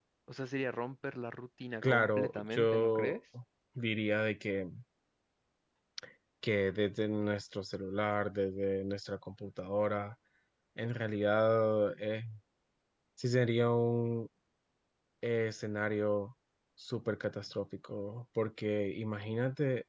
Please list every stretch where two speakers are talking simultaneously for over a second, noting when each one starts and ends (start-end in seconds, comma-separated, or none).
1.8-3.2